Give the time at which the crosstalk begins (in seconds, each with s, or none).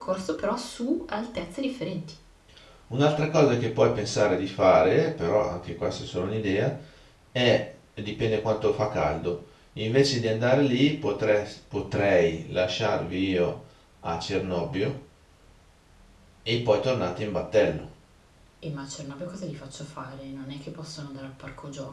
none